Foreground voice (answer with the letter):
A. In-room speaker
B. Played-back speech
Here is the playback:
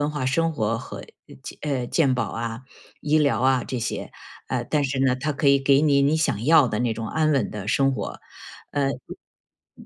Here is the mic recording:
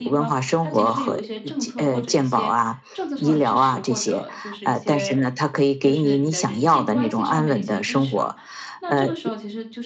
B